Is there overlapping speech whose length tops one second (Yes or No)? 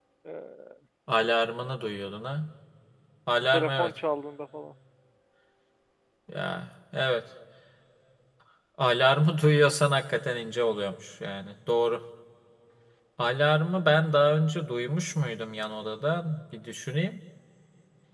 No